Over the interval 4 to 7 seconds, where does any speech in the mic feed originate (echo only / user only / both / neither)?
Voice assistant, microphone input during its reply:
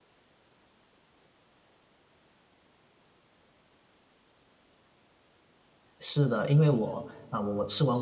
user only